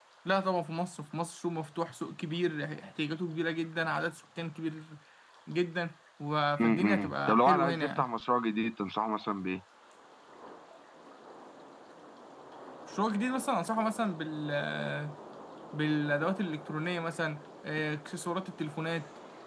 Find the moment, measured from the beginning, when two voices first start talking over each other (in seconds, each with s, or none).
6.6 s